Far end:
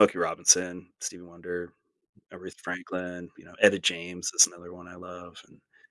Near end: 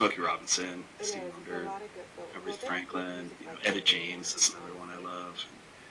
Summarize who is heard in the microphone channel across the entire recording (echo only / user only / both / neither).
both